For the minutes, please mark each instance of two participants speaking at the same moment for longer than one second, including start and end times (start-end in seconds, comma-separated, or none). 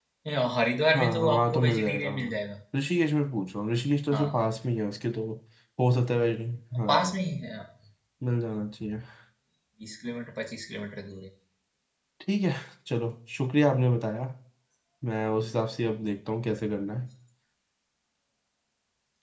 0.9-2.4